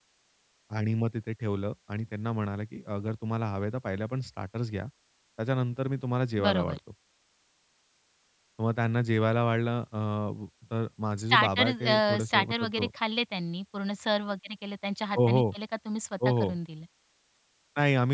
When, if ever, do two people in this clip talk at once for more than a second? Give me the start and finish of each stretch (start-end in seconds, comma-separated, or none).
11.3-12.9